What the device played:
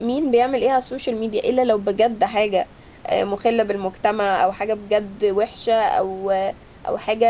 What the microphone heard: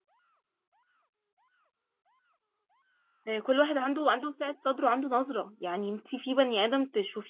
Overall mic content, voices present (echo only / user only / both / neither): user only